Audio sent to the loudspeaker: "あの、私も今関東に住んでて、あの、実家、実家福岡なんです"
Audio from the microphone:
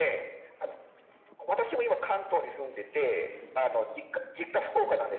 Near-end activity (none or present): none